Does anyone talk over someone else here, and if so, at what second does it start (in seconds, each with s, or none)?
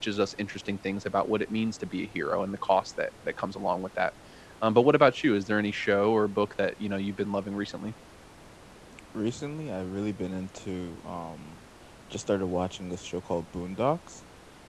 none